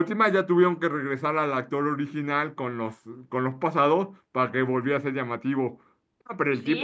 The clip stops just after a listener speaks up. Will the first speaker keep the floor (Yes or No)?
No